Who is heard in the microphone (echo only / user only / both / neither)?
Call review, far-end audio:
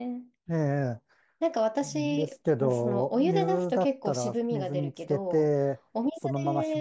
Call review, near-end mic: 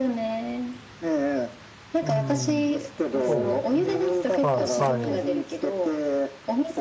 both